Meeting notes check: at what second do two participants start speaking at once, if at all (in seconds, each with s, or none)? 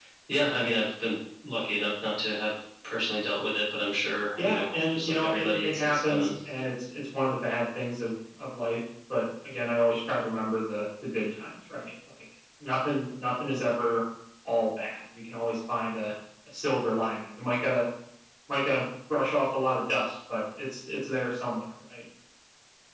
4.4 s